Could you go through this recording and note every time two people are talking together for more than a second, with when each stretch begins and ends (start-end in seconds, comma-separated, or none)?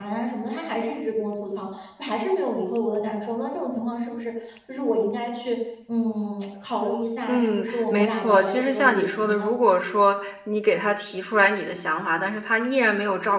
7.3-9.6